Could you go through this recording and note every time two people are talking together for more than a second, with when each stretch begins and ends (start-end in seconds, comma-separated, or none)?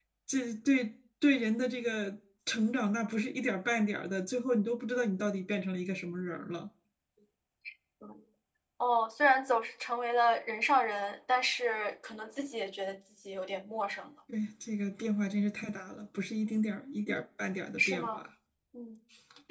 none